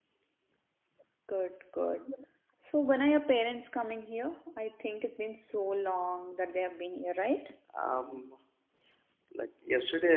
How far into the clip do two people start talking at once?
none

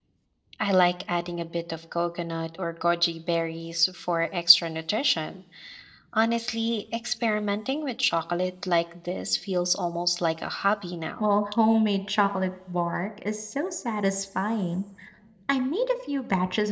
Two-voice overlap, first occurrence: none

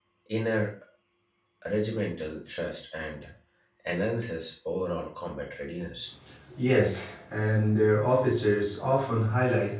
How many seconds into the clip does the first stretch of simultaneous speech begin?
none

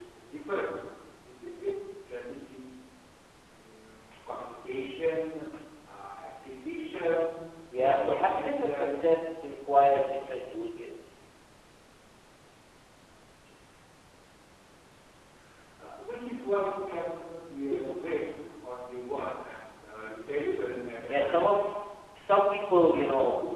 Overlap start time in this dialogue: 7.8 s

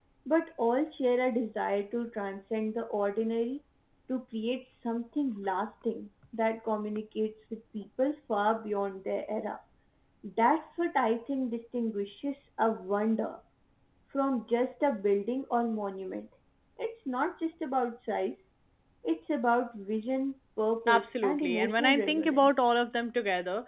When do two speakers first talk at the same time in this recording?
20.9 s

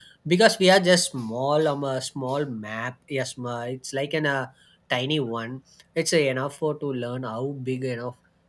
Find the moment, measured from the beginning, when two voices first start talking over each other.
none

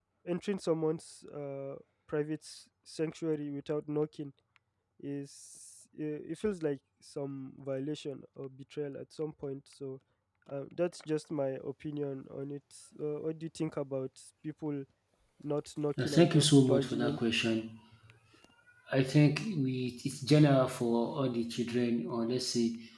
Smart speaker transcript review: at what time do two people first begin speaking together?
16.0 s

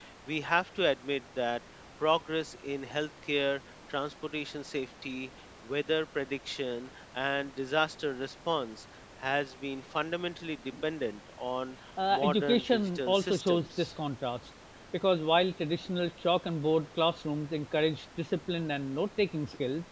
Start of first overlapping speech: 12.0 s

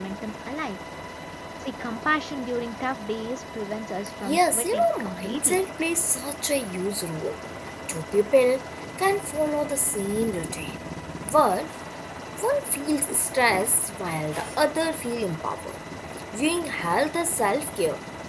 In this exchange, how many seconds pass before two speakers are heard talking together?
4.2 s

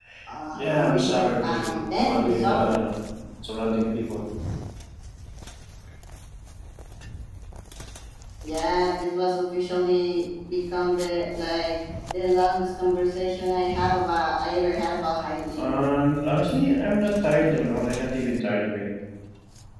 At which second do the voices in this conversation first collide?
0.5 s

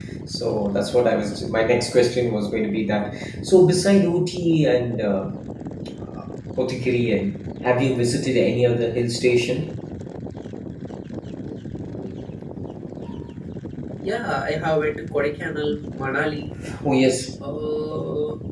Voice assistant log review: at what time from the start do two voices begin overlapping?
none

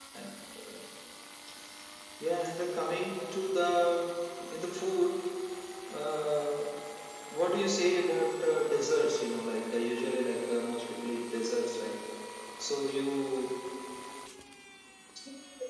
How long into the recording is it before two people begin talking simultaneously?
none

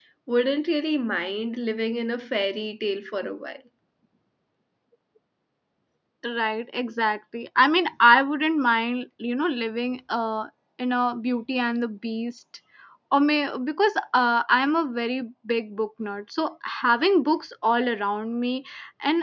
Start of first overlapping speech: none

